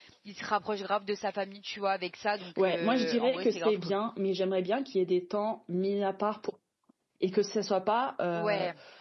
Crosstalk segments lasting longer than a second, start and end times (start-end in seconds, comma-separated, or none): 2.6-3.9